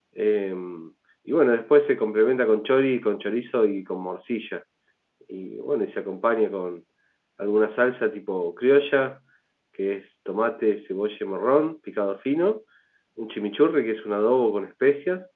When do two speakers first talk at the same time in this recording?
none

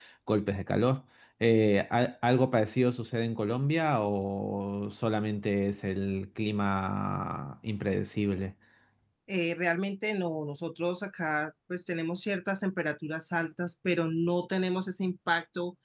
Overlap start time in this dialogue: none

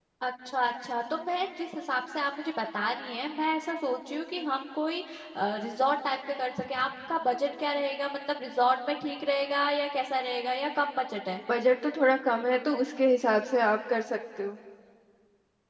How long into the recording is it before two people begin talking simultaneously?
none

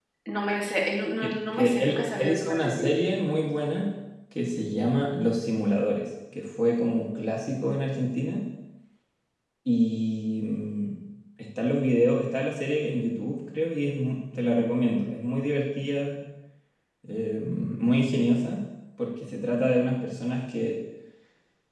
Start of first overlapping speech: 1.2 s

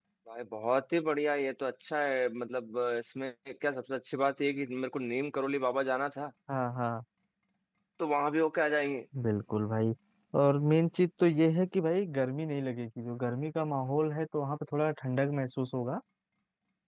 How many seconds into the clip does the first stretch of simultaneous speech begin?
none

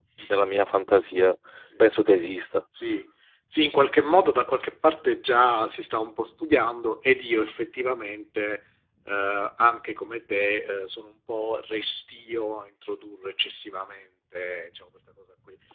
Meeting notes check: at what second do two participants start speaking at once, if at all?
none

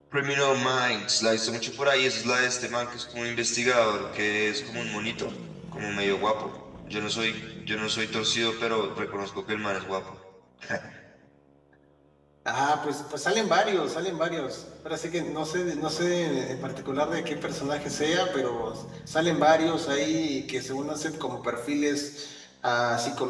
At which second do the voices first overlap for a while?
none

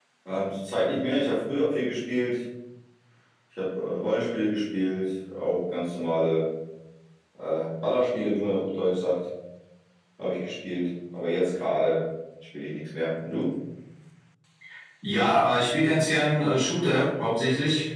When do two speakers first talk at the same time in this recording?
none

